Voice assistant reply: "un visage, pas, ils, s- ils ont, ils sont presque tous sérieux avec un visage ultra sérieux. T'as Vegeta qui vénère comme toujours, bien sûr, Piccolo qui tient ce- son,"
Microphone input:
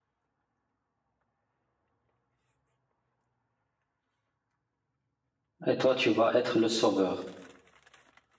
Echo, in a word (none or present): none